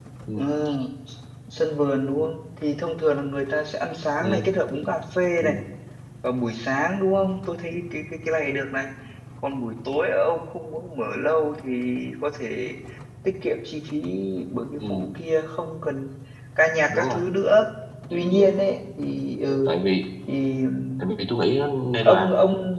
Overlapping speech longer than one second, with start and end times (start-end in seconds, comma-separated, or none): none